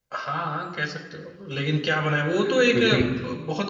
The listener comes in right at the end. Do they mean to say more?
No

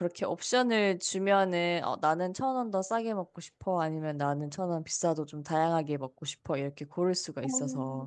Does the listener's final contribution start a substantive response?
Yes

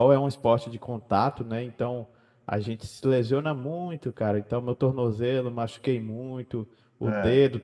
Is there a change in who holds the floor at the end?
No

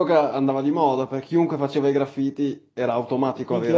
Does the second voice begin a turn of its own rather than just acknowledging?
Yes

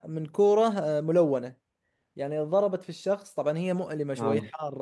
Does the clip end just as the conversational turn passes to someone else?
No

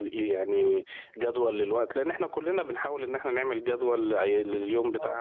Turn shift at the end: No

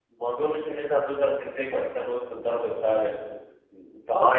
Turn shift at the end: Yes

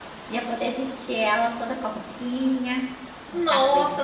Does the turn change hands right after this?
Yes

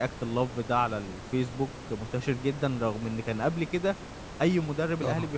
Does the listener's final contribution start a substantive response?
No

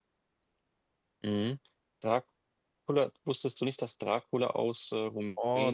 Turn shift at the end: Yes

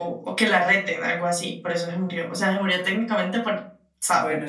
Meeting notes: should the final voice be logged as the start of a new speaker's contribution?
Yes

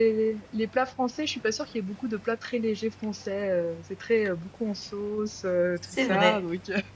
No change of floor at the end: No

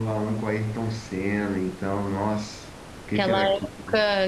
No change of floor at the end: No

